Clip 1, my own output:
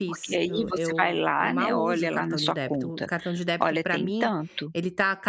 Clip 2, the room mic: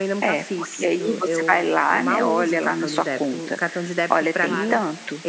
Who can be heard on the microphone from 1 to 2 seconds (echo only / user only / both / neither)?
echo only